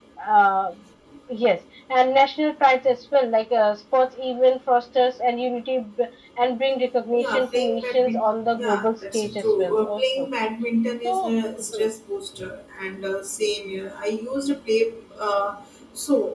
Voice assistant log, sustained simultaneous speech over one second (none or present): present